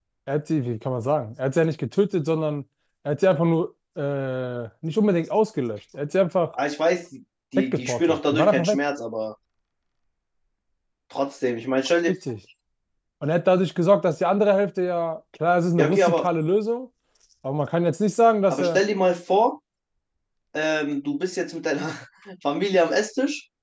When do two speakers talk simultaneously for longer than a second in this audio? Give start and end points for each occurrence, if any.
7.6-8.8

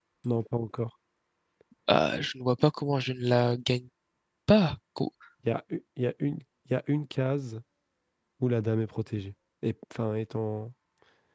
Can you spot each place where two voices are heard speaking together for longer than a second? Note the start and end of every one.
none

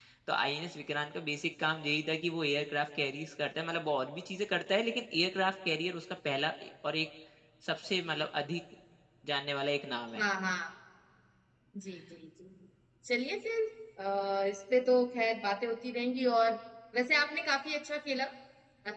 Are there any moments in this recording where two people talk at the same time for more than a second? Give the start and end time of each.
none

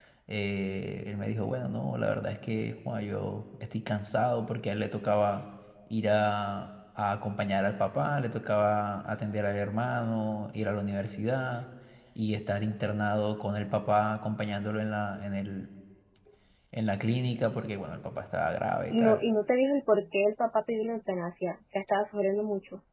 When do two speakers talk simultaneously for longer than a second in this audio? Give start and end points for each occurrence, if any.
none

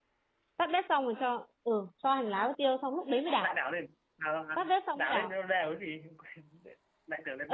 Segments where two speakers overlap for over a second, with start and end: none

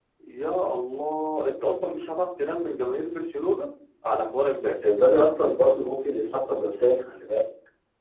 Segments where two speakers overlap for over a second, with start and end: none

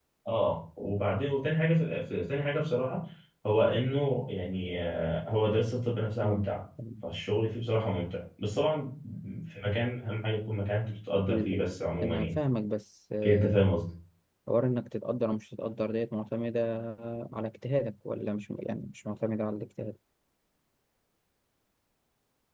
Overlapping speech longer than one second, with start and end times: none

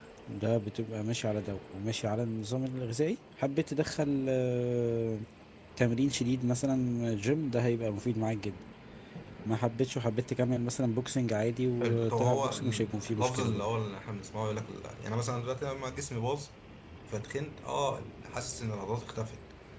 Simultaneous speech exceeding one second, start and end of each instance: 11.8-13.7

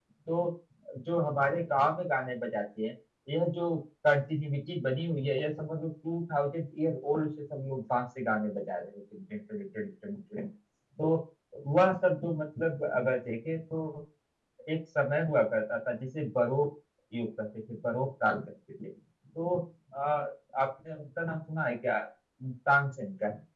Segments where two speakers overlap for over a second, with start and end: none

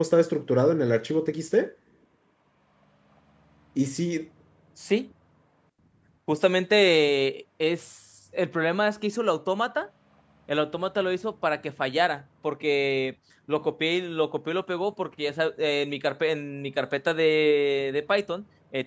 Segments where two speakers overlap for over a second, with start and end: none

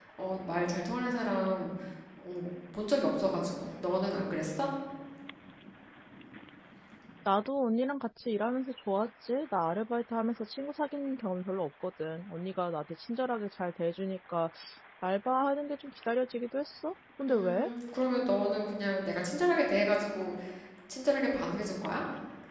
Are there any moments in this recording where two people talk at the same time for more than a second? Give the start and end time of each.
none

